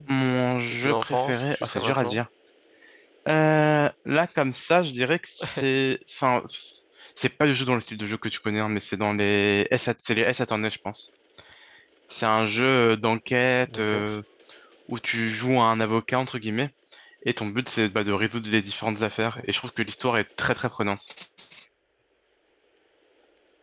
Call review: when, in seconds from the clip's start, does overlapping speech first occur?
0.8 s

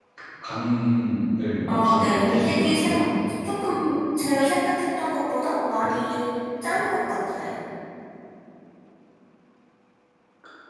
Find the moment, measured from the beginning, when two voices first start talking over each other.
1.7 s

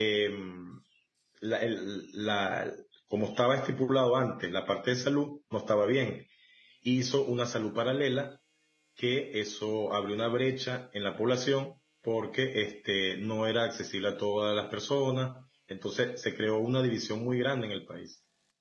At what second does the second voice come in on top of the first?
none

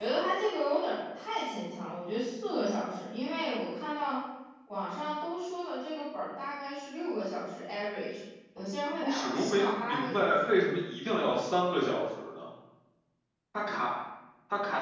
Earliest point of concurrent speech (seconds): 9.0 s

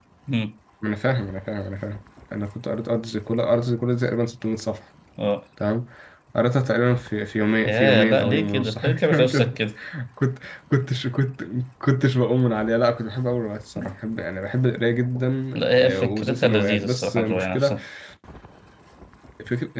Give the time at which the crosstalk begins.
7.7 s

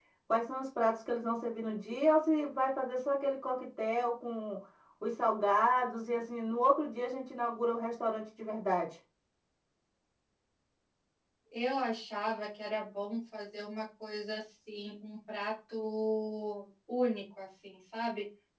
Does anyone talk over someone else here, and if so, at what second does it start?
none

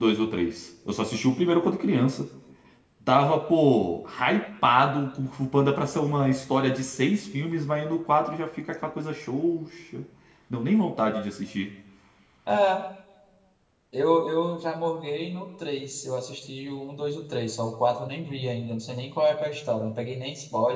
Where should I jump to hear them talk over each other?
none

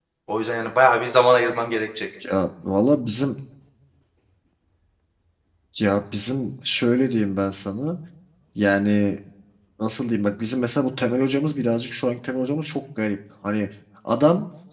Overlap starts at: none

